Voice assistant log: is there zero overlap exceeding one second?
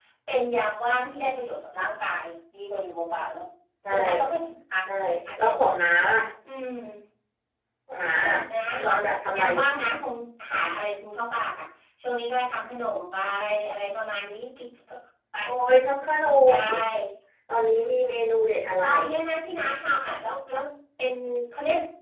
Yes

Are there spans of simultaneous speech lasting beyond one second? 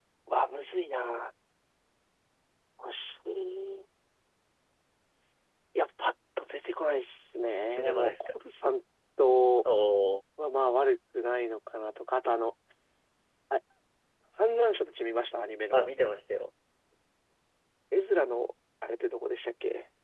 No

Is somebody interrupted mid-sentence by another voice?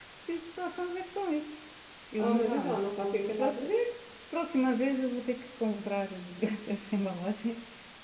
Yes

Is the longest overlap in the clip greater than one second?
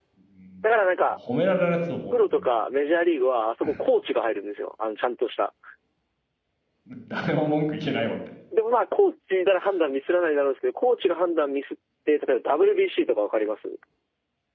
No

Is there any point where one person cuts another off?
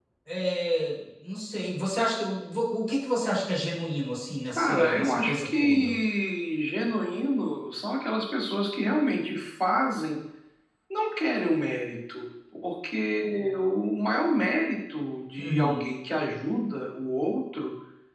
Yes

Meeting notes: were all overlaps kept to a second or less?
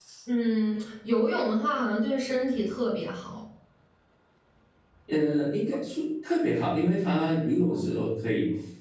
Yes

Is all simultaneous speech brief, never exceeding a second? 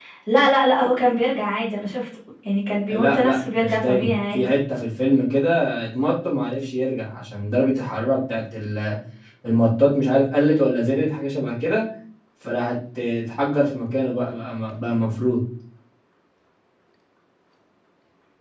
No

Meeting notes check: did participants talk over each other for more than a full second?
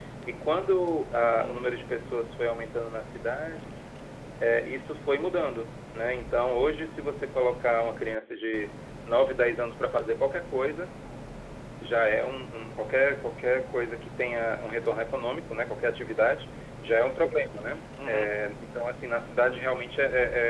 No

